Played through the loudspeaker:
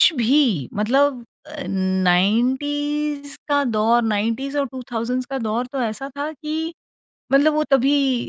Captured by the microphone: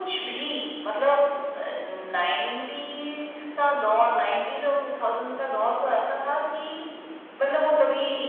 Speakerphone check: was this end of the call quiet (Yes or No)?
Yes